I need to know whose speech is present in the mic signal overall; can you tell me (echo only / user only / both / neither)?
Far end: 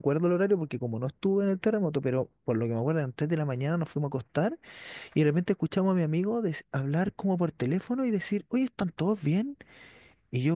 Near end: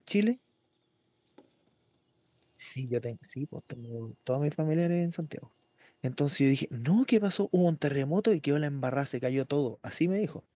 user only